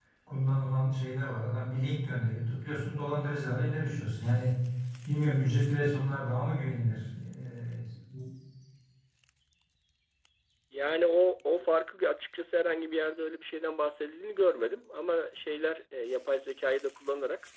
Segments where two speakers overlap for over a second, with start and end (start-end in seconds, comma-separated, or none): none